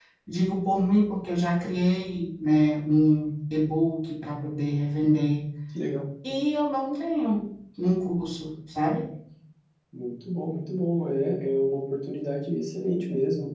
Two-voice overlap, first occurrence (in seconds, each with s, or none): none